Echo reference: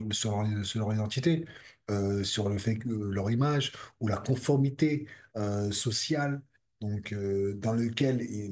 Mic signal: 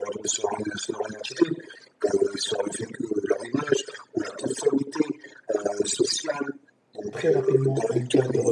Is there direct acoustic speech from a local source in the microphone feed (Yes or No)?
Yes